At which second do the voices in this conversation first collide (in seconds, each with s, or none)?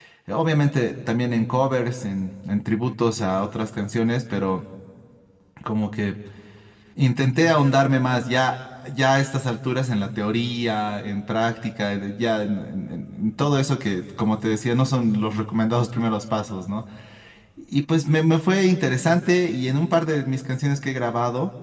none